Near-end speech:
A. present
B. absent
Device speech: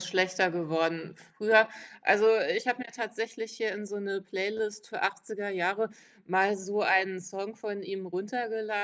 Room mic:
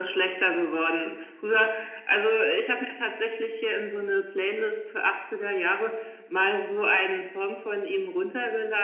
B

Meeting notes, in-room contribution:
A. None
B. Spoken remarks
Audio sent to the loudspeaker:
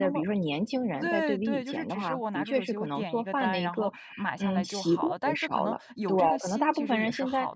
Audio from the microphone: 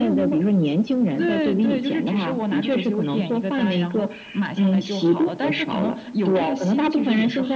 A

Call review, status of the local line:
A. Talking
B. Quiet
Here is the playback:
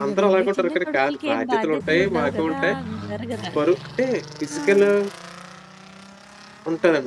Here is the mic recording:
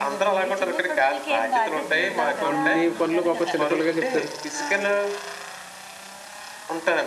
A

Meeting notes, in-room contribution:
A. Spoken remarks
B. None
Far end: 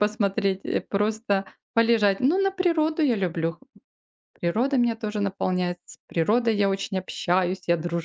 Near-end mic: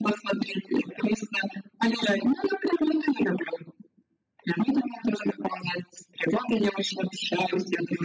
B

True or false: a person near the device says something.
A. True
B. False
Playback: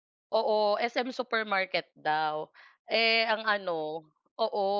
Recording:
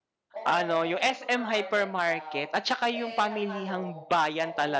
A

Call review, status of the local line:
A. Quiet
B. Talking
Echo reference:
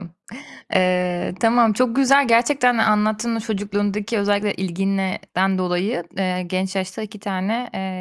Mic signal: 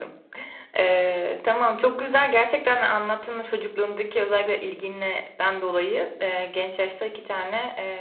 A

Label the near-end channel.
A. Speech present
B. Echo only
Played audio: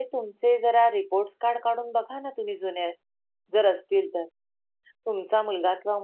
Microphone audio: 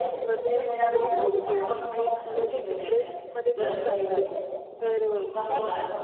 A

